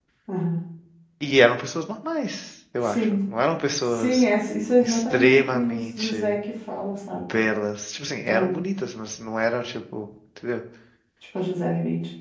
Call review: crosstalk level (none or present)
present